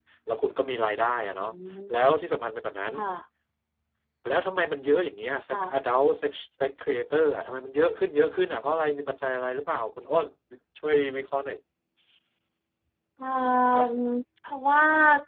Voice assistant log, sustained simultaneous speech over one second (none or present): none